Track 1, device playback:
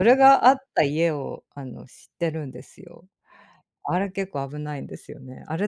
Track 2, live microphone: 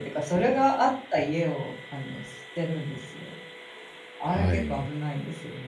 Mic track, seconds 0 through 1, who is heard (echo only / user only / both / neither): echo only